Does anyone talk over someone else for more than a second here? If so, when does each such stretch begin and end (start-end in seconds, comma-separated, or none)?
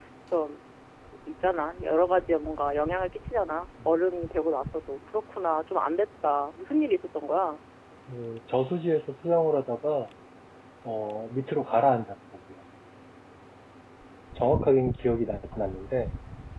none